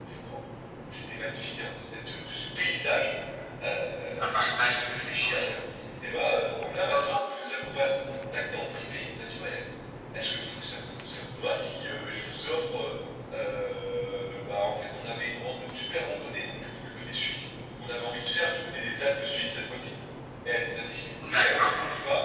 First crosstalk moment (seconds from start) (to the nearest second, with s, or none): 4 s